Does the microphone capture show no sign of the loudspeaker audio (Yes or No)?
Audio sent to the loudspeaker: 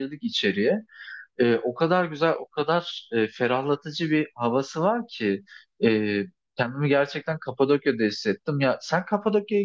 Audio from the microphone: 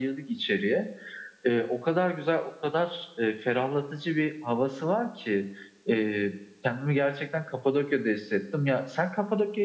No